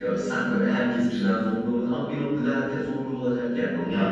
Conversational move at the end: taking over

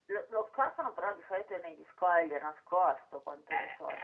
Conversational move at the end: taking over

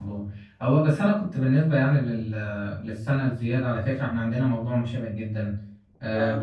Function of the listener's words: listening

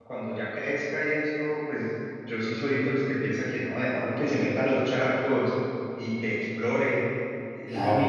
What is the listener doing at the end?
listening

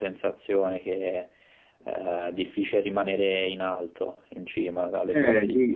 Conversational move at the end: taking over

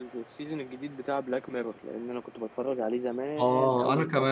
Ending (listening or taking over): taking over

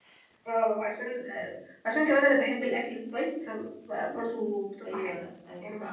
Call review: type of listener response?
taking over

